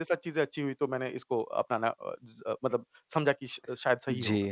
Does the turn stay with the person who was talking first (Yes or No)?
No